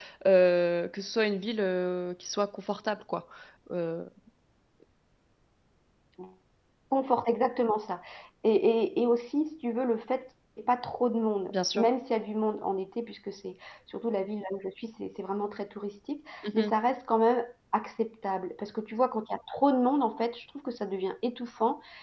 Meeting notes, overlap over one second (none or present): none